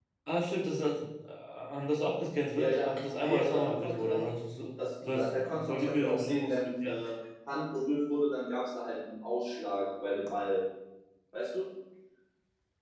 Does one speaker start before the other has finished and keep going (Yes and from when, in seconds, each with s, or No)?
Yes, from 2.6 s